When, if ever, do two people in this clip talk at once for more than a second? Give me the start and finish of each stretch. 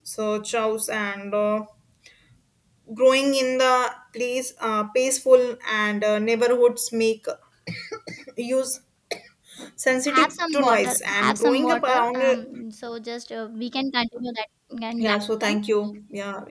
10.1-12.2

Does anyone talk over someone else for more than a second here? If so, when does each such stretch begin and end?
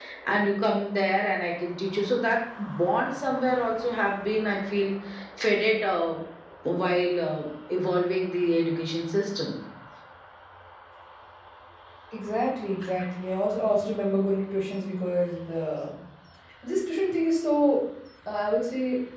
none

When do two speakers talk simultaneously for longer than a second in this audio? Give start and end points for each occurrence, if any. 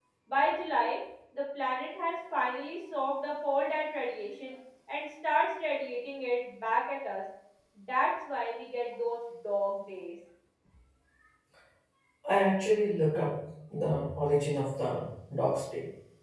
none

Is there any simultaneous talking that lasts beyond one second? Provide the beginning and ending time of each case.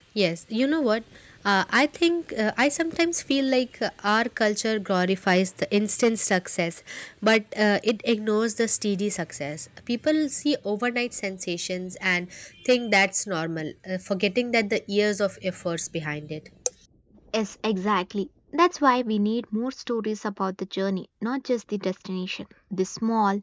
none

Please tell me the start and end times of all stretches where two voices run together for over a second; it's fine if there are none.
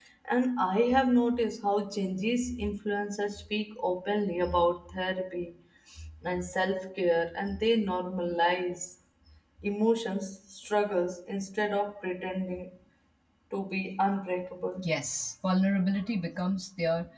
none

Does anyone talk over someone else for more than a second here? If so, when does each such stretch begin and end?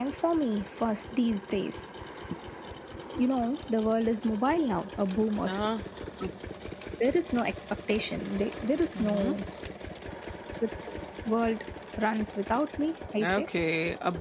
none

